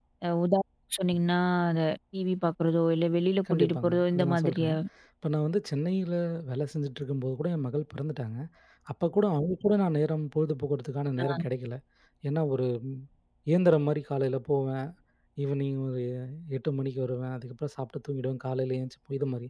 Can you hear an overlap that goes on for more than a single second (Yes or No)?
Yes